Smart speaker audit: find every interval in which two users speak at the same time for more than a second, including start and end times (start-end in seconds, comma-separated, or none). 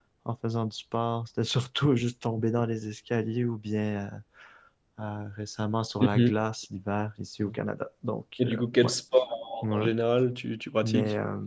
none